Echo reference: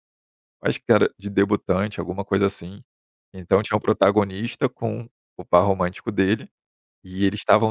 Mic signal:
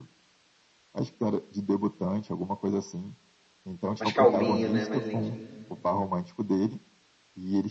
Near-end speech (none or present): present